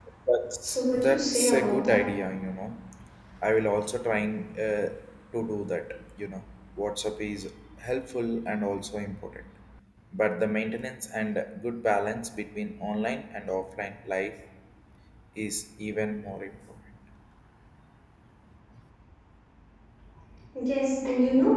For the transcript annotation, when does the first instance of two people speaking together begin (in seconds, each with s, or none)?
0.6 s